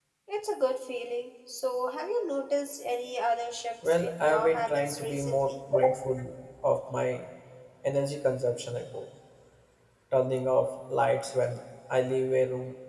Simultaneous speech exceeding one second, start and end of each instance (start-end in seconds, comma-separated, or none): 3.9-5.5